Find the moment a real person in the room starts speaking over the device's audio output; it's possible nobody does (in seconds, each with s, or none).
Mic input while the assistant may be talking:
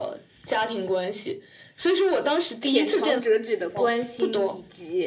2.6 s